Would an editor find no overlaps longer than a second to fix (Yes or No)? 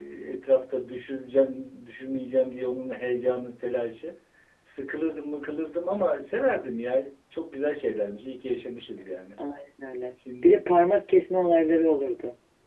Yes